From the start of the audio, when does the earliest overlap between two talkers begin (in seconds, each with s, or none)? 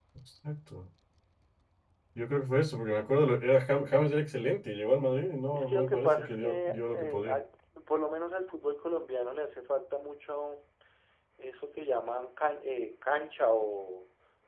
5.5 s